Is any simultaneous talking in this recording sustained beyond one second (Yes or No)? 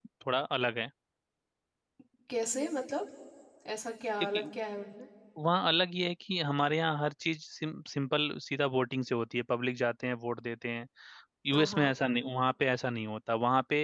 No